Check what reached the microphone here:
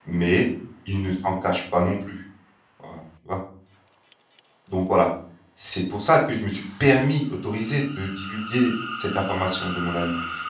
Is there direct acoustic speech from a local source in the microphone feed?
Yes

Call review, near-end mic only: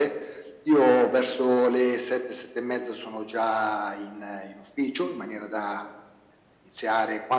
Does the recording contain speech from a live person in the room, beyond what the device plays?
No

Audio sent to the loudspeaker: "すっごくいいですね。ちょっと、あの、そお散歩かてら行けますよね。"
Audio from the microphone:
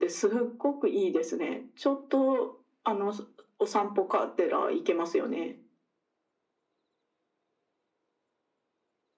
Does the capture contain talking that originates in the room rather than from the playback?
No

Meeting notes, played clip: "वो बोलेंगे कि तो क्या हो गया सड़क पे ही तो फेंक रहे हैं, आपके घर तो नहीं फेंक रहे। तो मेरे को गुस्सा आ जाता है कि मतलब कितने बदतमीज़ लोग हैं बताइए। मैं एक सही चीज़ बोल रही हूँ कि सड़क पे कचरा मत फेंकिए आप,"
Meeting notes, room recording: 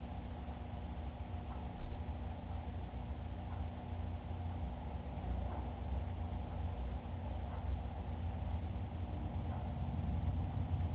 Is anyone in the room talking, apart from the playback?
No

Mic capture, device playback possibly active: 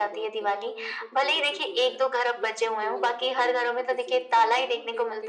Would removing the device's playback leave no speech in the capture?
No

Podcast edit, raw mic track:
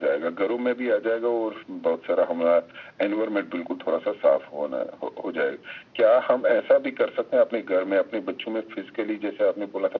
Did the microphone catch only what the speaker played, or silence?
Yes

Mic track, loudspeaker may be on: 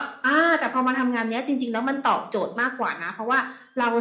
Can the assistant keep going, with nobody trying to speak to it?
Yes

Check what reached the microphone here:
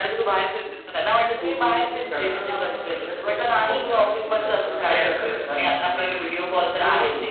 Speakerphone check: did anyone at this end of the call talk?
Yes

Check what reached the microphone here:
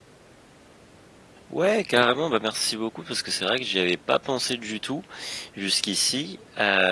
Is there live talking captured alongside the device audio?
Yes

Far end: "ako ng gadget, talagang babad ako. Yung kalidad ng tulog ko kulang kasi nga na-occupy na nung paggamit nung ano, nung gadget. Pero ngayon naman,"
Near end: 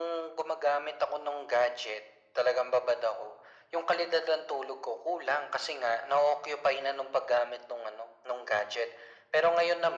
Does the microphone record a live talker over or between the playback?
No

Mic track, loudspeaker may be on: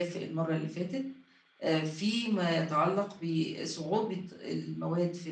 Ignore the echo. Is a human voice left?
No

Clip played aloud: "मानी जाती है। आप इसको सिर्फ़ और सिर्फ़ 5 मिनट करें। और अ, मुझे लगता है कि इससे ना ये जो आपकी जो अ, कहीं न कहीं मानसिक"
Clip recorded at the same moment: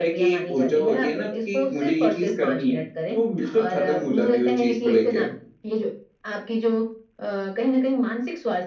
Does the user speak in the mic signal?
Yes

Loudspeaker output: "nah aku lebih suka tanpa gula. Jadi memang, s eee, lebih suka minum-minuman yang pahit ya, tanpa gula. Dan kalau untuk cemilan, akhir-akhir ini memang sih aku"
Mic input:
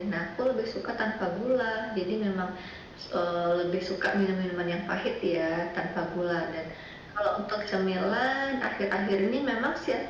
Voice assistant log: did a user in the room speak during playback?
No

